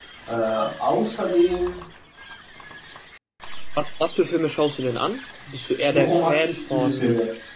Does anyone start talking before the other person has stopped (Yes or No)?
Yes